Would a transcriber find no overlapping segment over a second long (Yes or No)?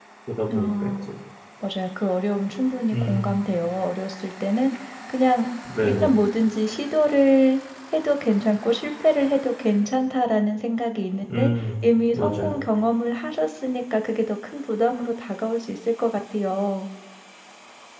Yes